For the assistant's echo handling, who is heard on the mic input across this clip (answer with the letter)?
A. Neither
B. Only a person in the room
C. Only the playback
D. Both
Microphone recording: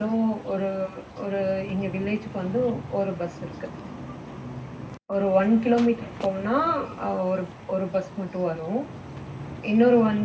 B